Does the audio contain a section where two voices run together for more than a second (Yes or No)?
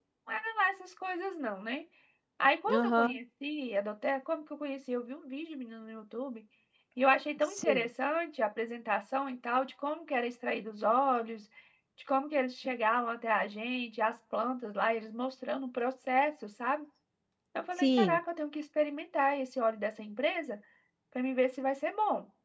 No